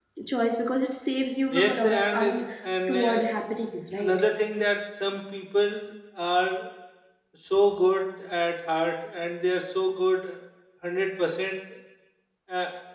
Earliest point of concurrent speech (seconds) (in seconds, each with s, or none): 1.5 s